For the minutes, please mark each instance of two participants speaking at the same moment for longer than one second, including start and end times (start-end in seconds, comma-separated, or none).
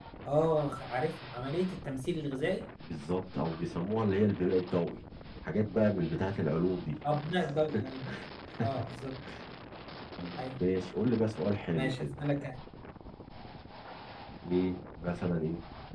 none